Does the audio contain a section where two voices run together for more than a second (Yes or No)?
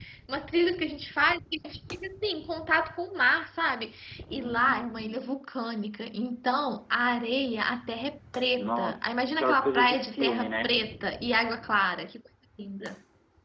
Yes